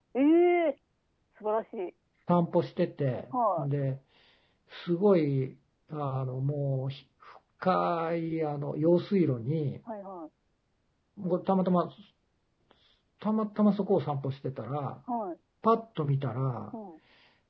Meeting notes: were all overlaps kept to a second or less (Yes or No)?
Yes